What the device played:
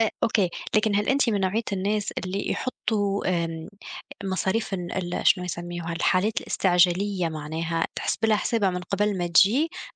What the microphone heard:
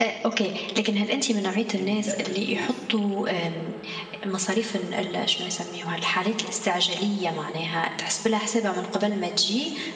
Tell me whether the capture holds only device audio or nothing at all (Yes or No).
No